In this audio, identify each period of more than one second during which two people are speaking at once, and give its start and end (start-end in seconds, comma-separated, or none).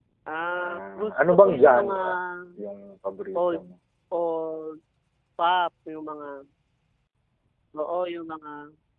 0.6-1.9